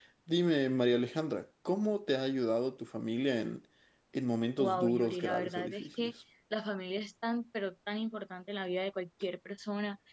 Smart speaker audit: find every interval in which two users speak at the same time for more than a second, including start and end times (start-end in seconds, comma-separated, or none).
4.6-6.1